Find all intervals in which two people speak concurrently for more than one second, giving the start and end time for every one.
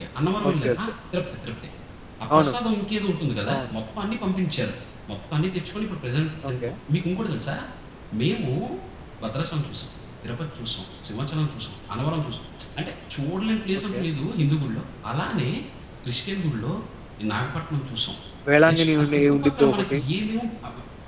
18.7-20.0

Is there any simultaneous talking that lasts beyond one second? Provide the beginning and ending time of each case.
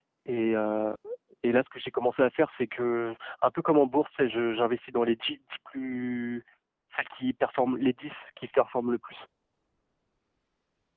none

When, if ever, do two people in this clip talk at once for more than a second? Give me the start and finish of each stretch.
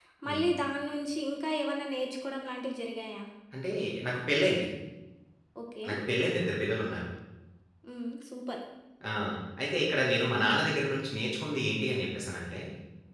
none

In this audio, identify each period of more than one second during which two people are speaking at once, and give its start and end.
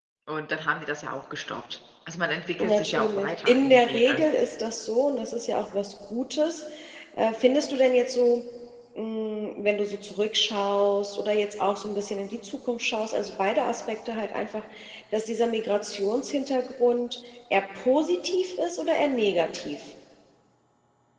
2.6-4.2

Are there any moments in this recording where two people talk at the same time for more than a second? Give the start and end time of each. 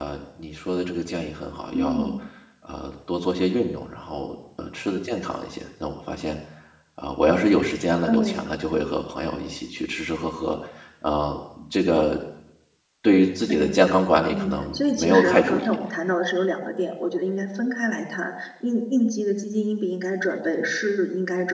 14.3-15.8

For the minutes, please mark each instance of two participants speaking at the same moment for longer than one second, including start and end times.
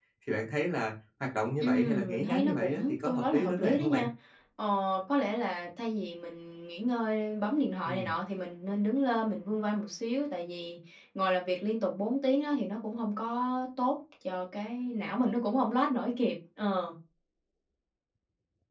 1.6-4.1

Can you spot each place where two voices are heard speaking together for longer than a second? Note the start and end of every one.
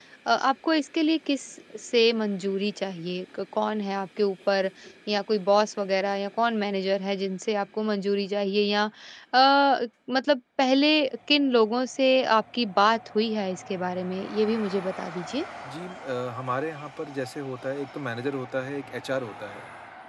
none

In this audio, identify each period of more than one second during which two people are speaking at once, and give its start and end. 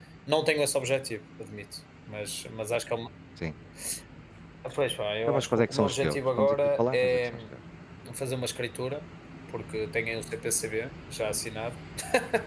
5.3-7.2

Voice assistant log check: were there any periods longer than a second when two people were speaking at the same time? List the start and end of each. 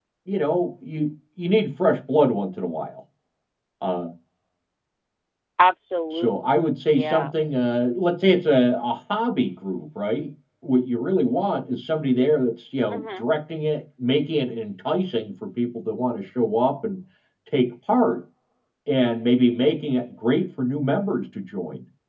none

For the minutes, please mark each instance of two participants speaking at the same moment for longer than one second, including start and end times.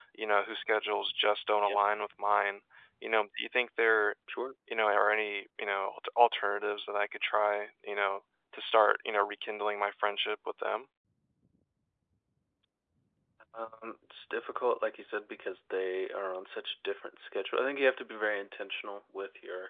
none

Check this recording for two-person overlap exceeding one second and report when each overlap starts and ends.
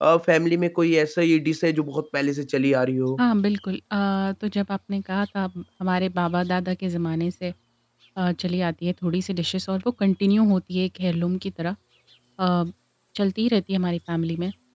none

